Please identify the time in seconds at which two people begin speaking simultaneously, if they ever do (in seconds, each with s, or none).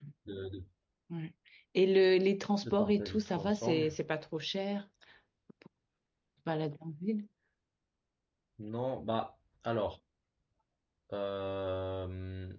2.6 s